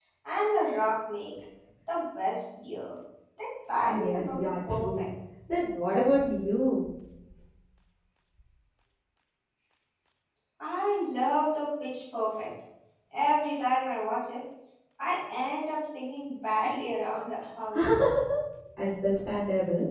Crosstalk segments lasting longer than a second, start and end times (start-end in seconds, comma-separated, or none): 3.8-5.1